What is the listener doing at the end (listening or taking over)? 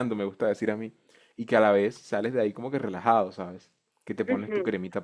listening